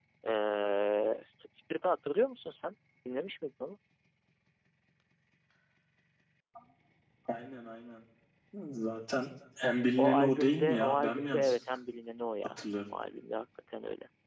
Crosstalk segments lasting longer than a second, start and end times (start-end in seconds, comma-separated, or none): 10.0-11.6